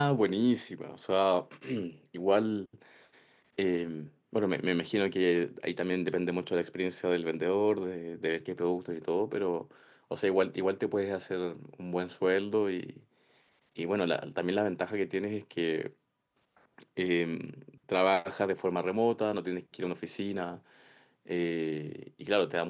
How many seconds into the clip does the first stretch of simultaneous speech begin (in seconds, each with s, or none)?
none